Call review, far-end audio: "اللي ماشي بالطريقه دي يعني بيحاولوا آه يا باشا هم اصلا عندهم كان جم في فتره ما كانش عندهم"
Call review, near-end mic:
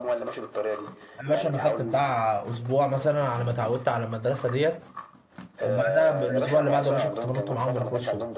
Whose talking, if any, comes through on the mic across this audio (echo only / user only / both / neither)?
both